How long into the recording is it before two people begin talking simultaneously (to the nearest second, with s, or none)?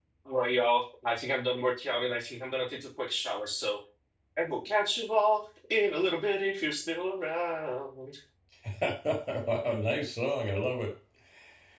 none